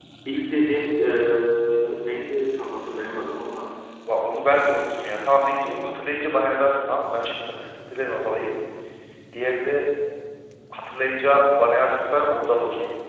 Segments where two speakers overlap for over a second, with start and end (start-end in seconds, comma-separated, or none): none